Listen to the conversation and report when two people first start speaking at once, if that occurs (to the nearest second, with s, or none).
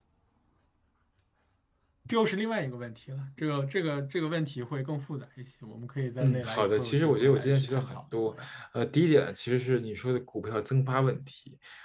6 s